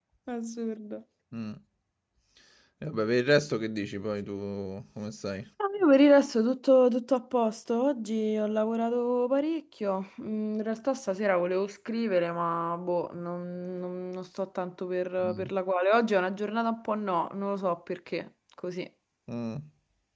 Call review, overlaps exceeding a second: none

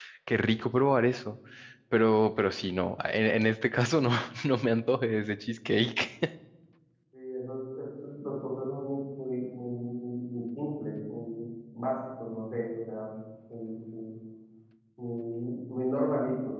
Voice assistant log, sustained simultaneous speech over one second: none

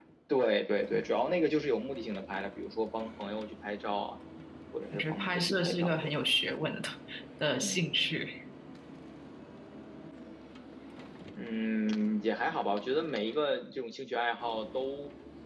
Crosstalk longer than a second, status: present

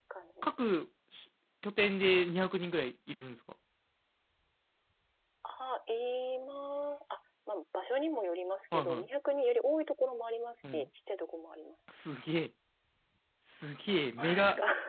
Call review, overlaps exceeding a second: none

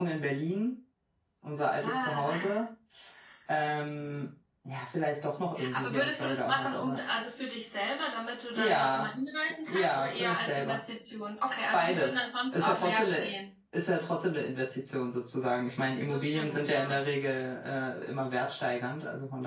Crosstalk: present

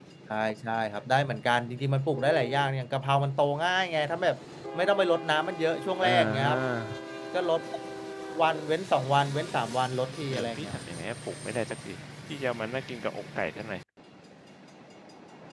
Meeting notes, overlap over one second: none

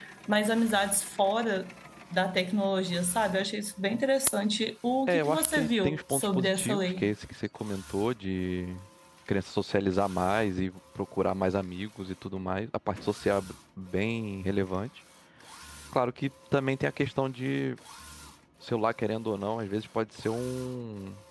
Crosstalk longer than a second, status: present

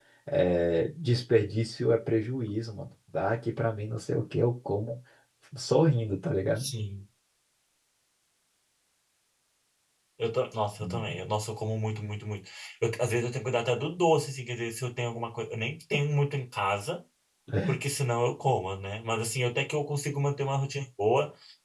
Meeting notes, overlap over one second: none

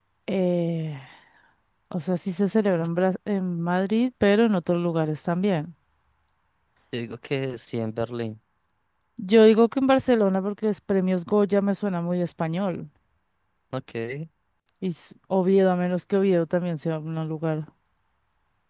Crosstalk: none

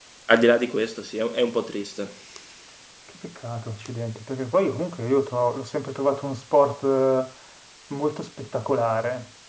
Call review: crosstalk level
none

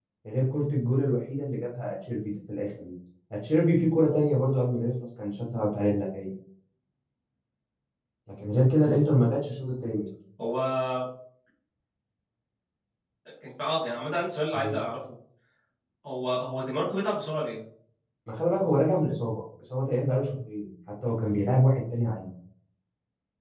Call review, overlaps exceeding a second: none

